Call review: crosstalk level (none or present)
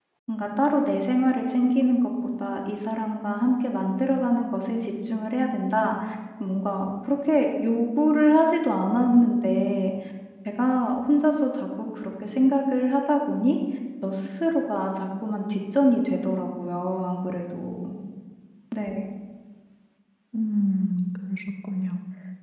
none